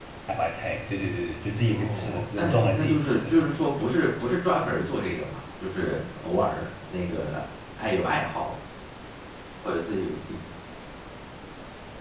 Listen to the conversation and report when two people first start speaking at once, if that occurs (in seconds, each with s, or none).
1.7 s